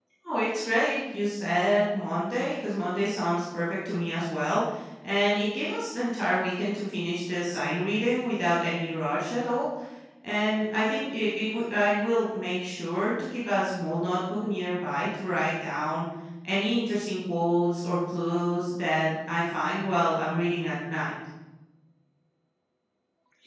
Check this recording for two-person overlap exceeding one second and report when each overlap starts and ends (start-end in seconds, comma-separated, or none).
none